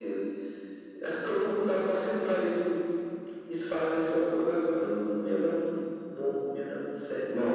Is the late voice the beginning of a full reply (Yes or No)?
Yes